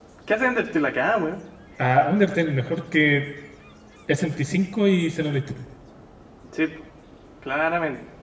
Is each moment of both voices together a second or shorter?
Yes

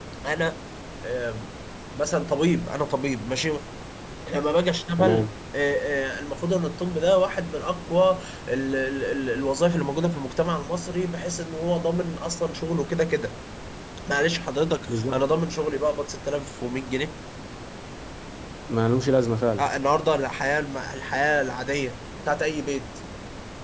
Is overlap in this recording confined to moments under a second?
Yes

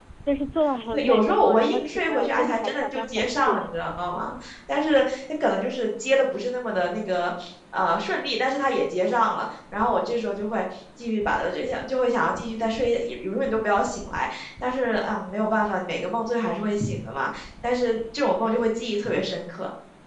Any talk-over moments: Yes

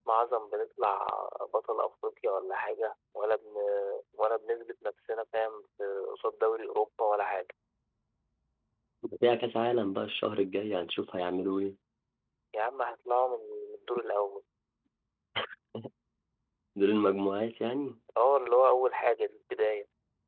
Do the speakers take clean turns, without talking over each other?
Yes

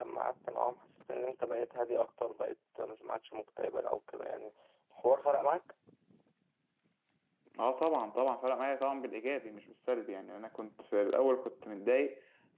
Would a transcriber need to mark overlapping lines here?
No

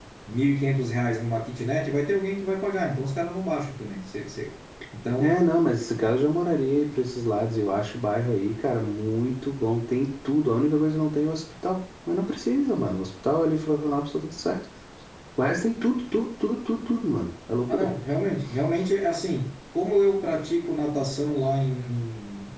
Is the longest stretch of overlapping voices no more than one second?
Yes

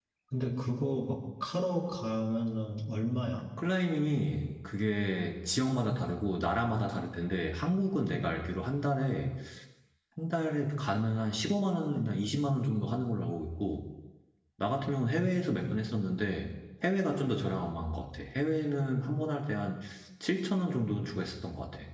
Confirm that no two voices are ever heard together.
Yes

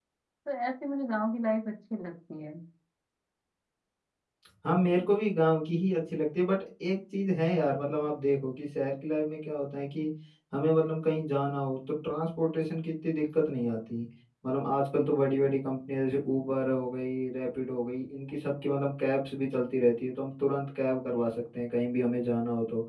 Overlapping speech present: No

